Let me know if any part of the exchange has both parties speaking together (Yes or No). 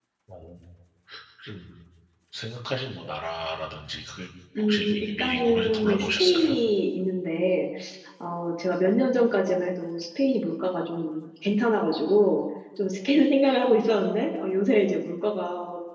Yes